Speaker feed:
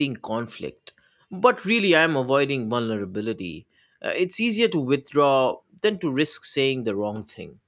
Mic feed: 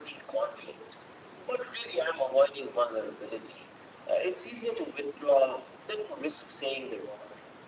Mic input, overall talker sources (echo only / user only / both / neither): echo only